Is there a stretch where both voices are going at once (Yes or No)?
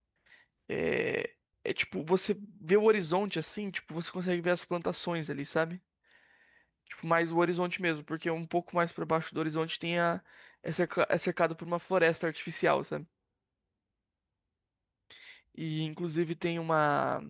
No